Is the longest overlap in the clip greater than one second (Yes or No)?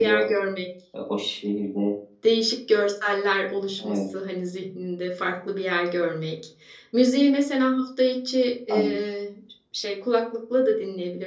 No